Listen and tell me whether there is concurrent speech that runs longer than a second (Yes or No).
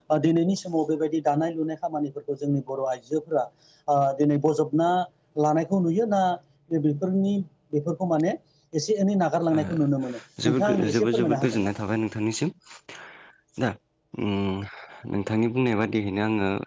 Yes